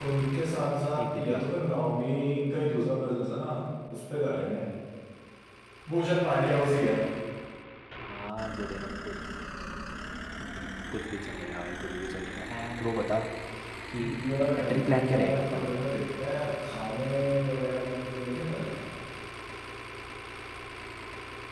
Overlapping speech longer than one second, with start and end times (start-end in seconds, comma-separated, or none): 14.6-15.8